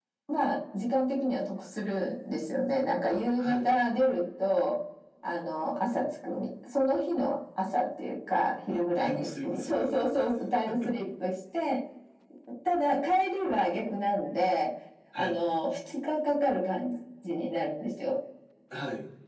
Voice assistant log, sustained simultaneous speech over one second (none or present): present